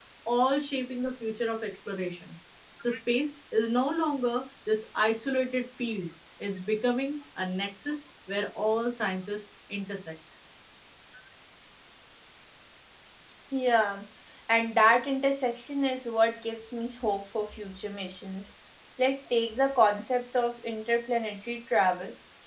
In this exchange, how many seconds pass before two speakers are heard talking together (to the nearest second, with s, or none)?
none